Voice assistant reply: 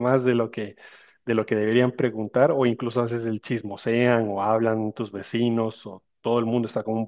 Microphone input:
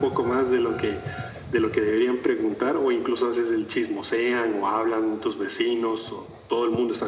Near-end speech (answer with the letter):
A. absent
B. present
A